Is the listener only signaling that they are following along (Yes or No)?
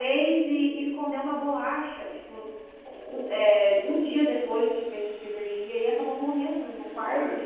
Yes